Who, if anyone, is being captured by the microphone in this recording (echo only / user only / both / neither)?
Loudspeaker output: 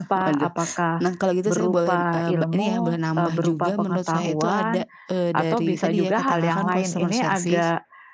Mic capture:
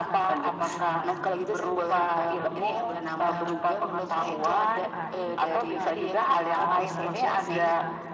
both